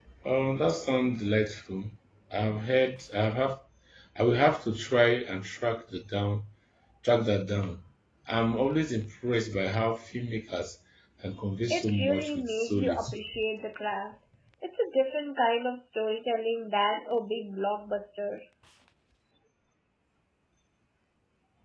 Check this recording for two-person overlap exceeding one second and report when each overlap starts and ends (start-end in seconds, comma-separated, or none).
11.7-13.2